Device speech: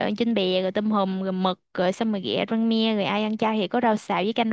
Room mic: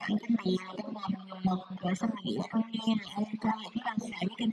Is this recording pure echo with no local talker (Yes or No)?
Yes